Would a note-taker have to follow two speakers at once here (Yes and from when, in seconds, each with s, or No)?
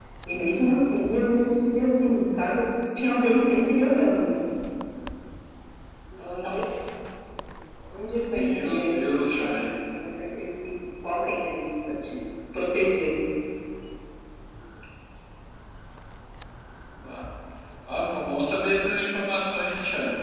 Yes, from 8.3 s